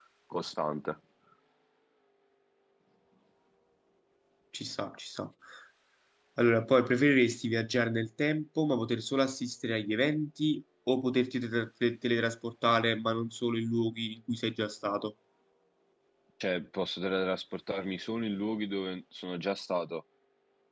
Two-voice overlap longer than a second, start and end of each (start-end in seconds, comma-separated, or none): none